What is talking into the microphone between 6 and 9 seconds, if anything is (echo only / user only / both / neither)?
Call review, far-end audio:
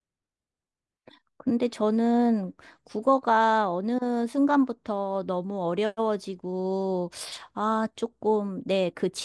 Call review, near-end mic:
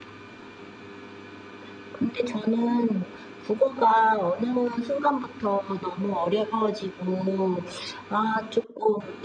echo only